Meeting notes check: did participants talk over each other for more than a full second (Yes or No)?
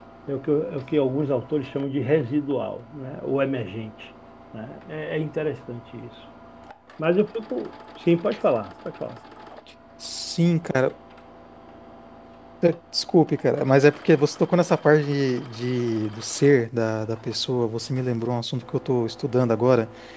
No